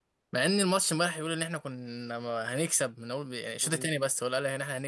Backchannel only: Yes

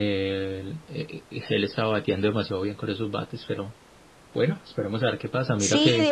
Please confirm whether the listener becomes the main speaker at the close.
Yes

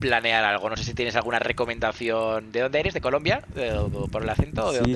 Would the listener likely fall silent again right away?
No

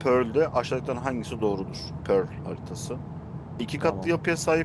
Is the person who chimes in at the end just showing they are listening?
Yes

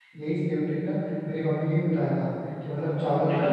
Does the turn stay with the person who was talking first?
Yes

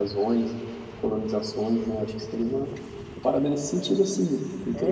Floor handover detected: Yes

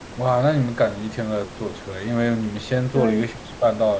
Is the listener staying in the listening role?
Yes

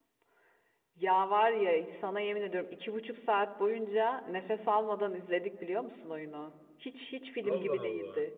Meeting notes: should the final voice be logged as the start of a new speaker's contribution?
No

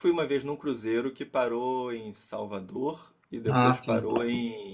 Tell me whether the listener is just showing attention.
Yes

